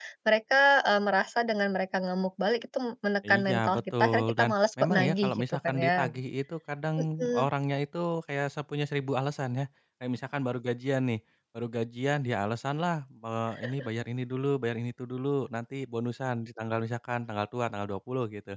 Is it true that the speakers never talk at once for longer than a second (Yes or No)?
No